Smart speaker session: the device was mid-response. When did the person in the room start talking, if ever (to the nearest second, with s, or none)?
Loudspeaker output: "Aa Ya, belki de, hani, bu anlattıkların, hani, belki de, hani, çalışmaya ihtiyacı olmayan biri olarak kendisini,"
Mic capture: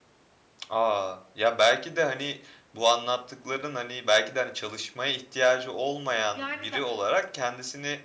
6 s